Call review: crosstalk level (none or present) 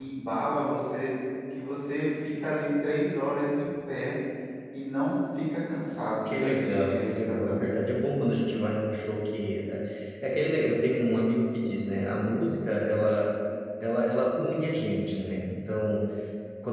present